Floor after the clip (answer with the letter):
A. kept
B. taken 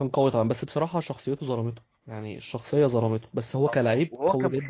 B